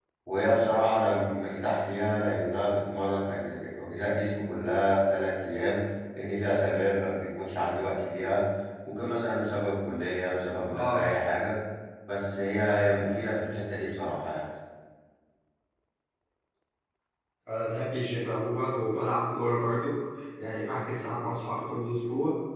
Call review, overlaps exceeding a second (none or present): none